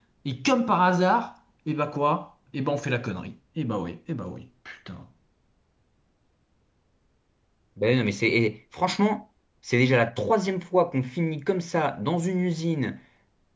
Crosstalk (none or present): none